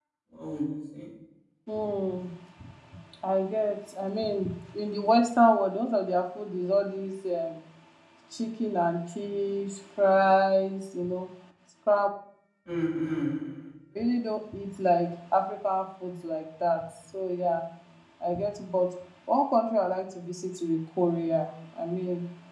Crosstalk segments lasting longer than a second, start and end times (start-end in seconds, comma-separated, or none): none